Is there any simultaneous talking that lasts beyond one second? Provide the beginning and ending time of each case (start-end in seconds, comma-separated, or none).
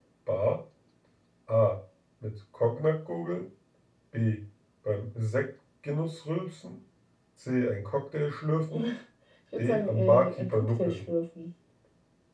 9.6-11.0